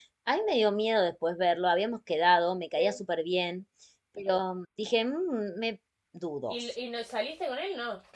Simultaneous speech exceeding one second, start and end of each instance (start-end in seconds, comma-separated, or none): none